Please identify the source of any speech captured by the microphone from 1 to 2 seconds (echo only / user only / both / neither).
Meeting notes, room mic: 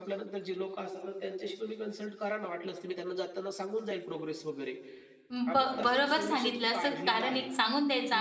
echo only